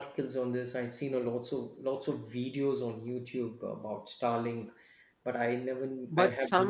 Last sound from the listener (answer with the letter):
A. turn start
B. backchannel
A